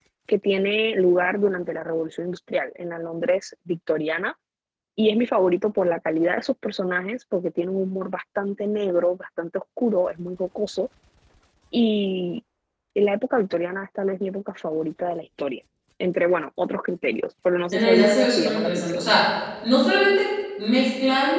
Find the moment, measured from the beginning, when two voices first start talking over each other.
17.7 s

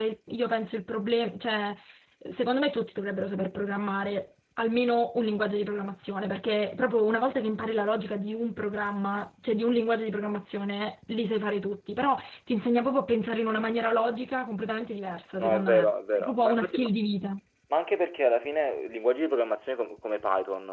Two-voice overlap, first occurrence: 15.4 s

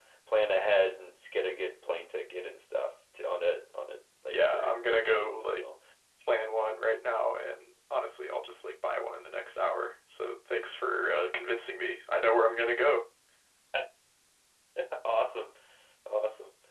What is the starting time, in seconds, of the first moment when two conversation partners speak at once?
4.3 s

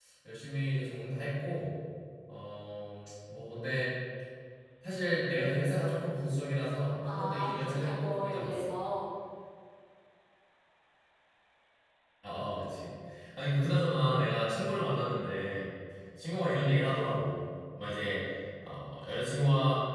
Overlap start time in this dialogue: 7.0 s

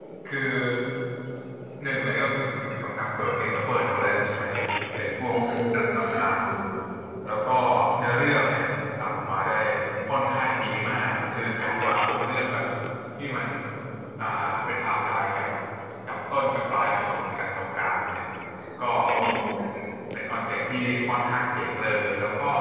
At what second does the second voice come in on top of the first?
5.3 s

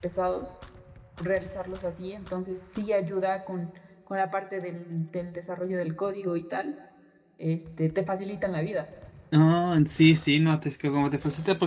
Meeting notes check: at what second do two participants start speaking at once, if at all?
none

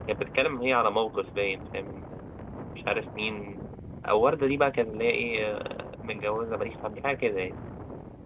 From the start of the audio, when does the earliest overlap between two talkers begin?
none

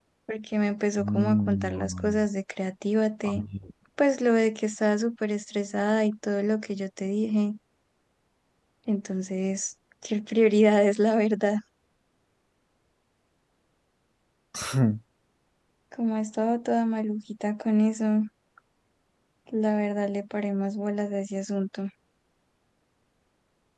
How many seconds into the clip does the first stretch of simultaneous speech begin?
1.0 s

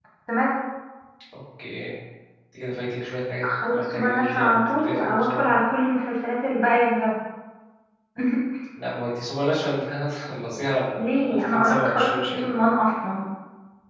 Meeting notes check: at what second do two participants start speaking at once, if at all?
3.4 s

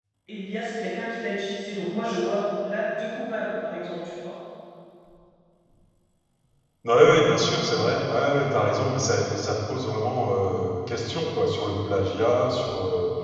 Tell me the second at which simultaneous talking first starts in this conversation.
none

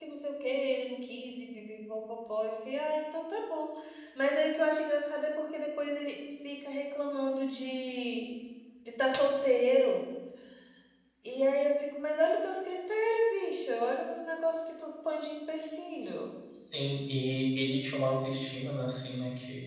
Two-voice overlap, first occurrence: none

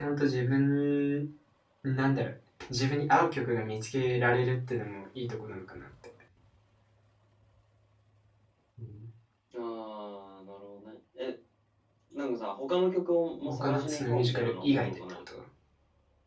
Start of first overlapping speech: 13.5 s

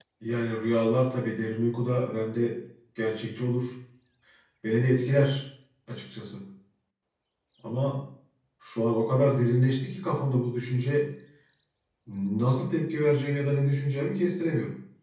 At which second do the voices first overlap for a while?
none

